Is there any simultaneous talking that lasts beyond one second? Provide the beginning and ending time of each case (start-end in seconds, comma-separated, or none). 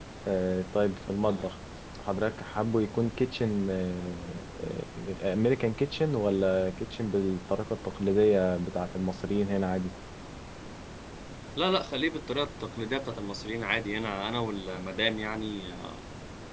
none